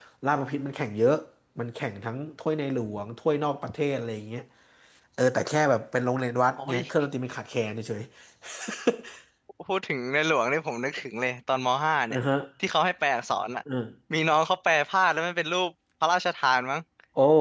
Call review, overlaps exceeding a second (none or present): none